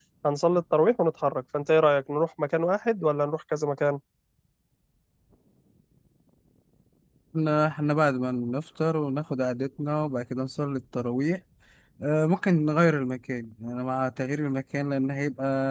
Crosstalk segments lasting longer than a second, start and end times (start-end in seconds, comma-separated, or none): none